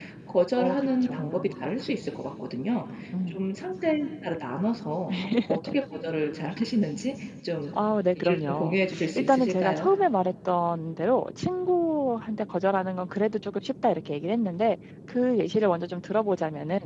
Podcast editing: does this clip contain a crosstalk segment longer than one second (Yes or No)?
Yes